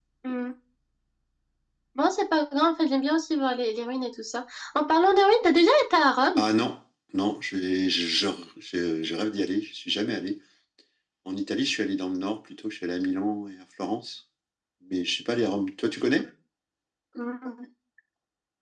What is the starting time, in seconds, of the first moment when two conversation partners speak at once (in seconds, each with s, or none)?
none